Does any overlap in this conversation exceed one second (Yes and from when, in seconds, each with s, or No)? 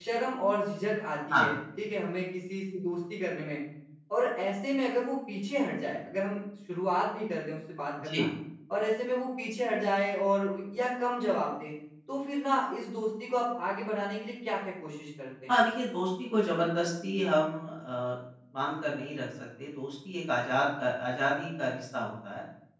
No